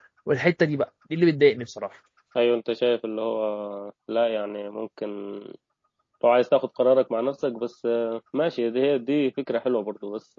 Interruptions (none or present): none